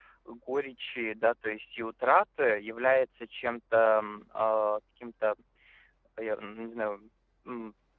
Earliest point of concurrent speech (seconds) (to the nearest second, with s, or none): none